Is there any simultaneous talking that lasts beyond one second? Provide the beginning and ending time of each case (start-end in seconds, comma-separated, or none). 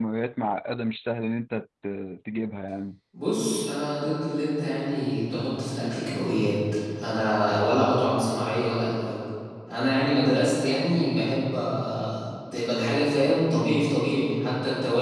none